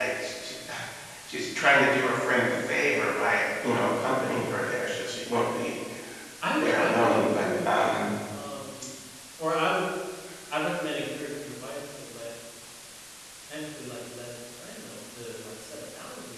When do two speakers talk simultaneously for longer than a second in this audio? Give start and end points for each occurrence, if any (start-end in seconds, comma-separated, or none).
6.6-7.8